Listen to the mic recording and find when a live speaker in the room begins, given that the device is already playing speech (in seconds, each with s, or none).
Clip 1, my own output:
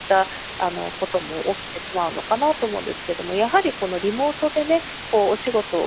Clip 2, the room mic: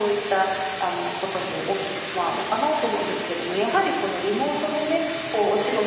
none